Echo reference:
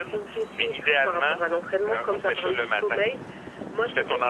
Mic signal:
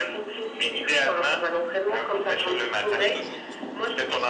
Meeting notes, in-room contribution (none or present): present